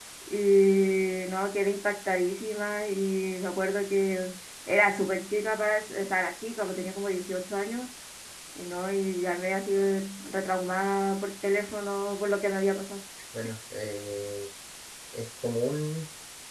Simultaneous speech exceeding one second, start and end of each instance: none

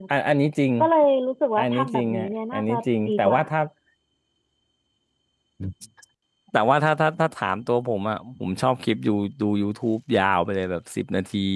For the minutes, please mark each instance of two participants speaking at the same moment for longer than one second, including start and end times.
1.6-3.4

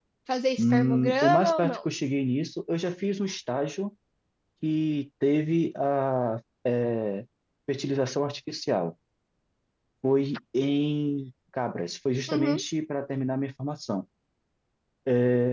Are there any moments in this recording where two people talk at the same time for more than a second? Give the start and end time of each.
0.6-1.9

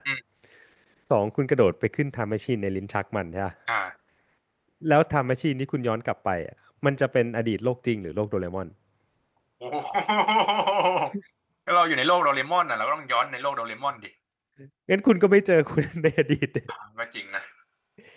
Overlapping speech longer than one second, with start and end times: none

